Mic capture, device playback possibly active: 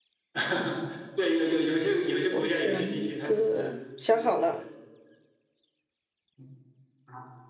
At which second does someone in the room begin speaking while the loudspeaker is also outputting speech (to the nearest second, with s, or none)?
2 s